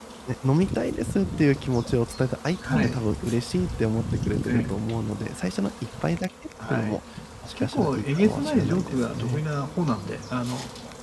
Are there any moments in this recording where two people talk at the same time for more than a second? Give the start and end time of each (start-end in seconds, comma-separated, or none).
7.6-9.4